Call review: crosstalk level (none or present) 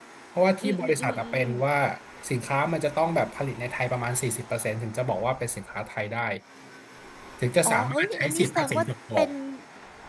present